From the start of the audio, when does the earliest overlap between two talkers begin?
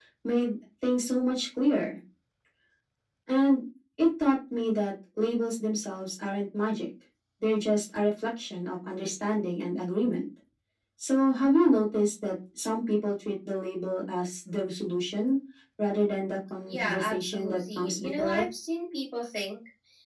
16.7 s

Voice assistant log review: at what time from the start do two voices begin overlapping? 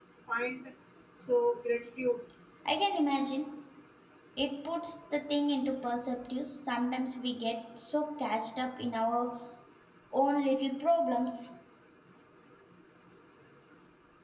none

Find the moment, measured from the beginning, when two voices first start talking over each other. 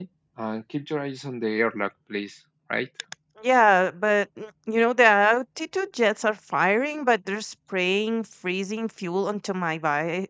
none

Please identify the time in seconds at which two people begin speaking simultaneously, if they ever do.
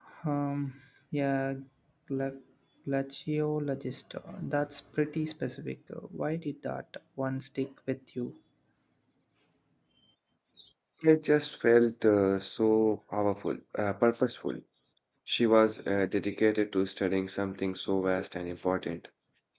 none

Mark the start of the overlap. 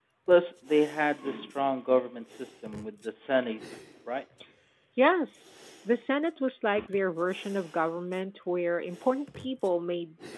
none

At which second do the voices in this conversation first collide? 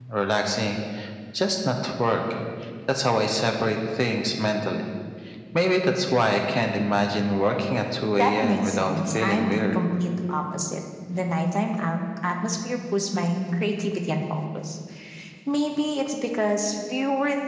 8.2 s

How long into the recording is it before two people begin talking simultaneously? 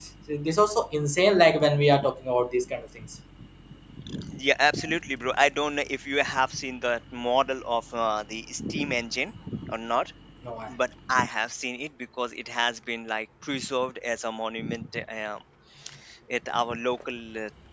none

